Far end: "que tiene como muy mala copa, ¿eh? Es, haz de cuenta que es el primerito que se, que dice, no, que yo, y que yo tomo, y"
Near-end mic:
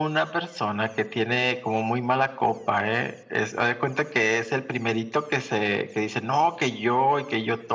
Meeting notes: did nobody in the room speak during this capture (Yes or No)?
Yes